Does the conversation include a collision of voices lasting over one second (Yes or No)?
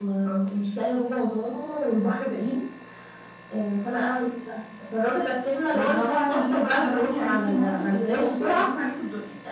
Yes